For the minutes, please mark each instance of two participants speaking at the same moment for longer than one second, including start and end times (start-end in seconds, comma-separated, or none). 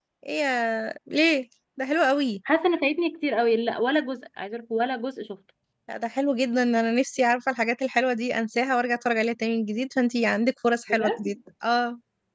none